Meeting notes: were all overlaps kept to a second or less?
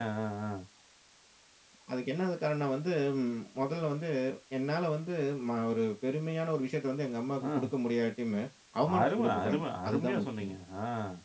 No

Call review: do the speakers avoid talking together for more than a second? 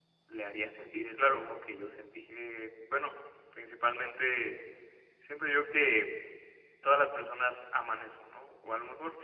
Yes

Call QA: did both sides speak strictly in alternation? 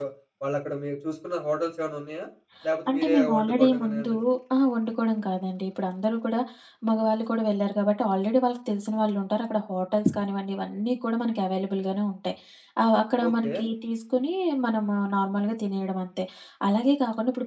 No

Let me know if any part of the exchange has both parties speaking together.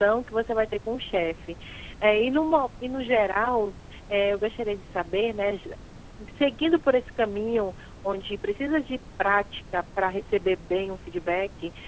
No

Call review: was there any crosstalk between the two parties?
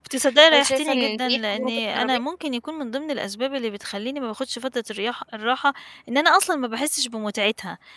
Yes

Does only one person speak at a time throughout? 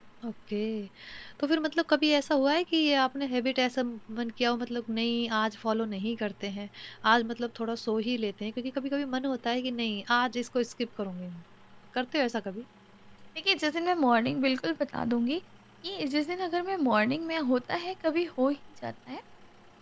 Yes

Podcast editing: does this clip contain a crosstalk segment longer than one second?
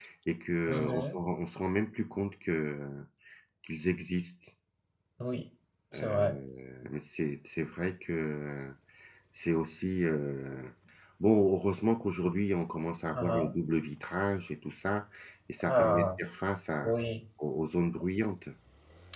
No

